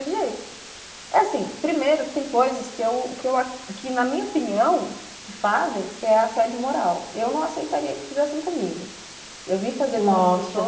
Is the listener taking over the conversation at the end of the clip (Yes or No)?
No